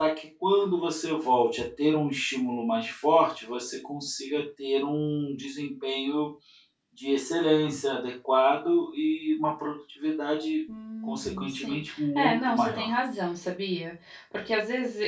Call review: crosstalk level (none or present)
present